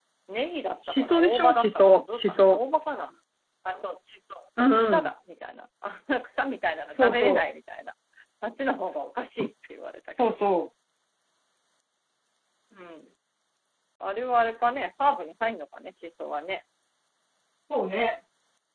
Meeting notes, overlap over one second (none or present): present